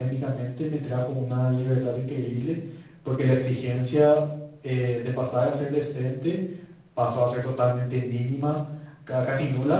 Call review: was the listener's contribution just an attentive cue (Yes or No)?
Yes